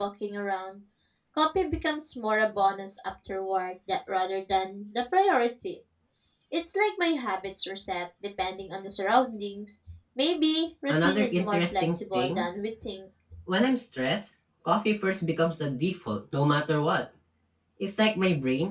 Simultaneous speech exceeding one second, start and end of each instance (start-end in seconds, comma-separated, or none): 10.9-12.5